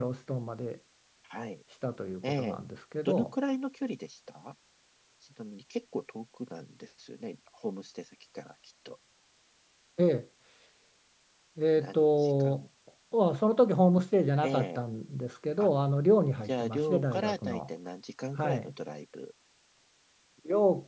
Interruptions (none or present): present